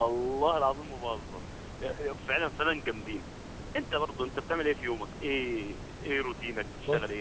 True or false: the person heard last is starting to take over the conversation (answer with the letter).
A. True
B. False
A